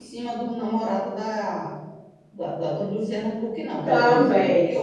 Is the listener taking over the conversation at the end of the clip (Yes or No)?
Yes